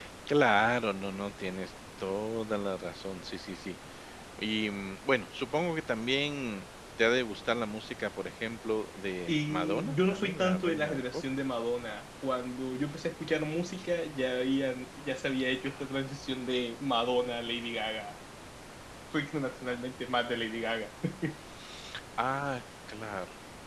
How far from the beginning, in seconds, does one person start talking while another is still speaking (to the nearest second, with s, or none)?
9 s